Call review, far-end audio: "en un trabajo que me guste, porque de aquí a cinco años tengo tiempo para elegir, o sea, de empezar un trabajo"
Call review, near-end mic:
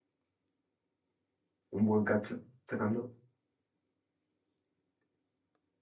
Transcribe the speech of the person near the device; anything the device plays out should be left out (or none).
un buen cacho sacándolo